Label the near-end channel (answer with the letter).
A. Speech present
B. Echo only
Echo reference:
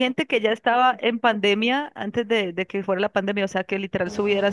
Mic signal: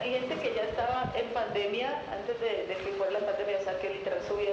B